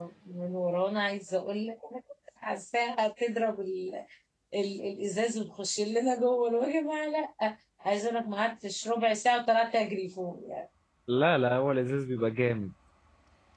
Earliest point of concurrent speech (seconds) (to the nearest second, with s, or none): none